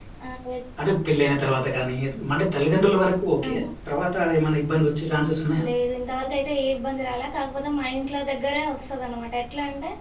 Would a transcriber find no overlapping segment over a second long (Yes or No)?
Yes